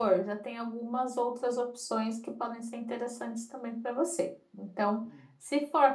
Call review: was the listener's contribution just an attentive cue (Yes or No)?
Yes